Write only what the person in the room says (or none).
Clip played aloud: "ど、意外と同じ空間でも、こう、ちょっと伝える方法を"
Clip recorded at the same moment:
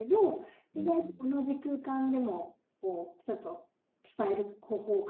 うん。